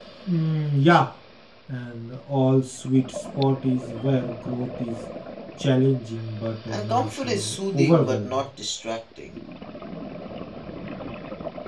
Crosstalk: present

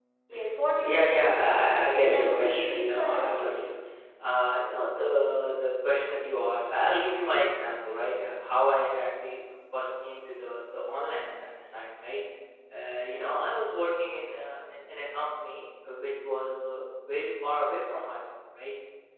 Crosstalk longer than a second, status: present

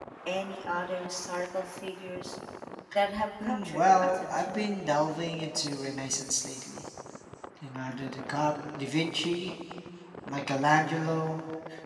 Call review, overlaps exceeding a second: present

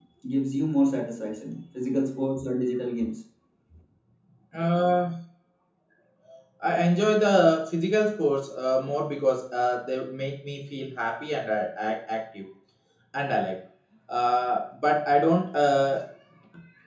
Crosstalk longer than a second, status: none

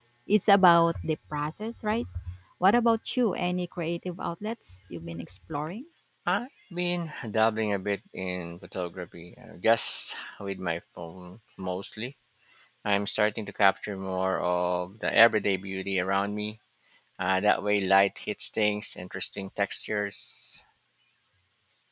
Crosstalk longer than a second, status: none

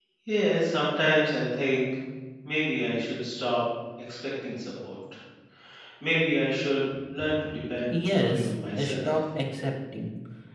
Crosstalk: present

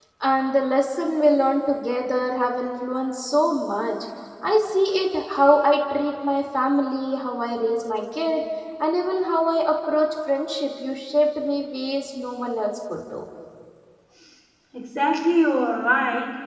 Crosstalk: none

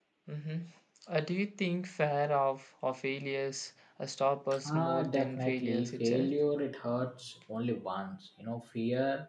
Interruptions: present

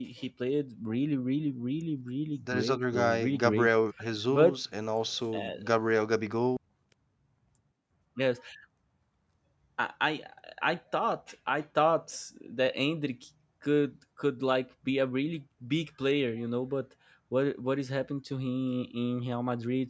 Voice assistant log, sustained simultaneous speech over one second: present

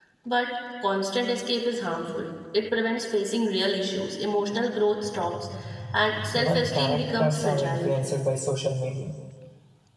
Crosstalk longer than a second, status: present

